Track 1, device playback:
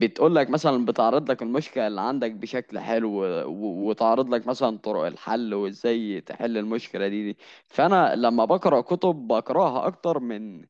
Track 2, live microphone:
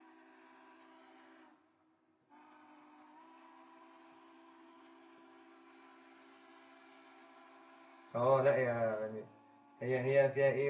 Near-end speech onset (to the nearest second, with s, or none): 8 s